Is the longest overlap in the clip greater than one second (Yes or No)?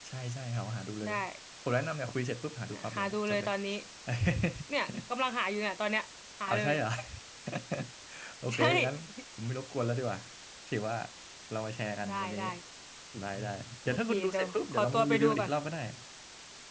Yes